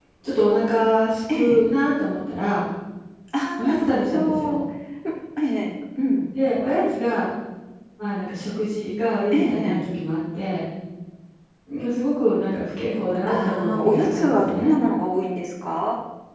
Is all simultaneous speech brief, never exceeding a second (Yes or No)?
No